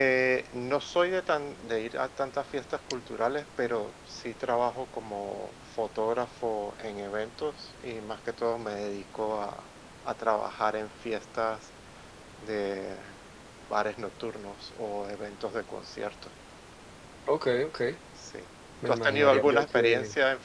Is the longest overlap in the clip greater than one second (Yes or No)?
Yes